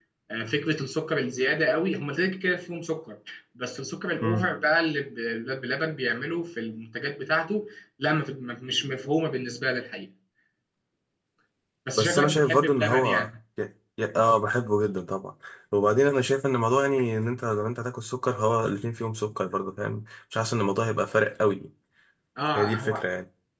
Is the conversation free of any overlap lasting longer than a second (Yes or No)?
No